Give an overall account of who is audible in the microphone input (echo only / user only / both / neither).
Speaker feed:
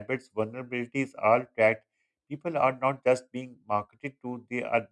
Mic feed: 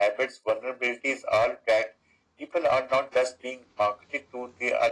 echo only